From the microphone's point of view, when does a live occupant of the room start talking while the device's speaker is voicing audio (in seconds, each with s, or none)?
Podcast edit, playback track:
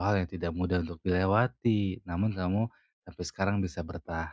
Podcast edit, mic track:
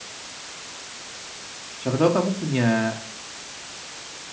1.8 s